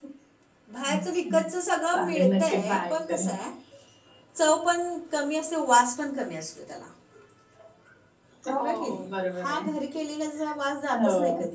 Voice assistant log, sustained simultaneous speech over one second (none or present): present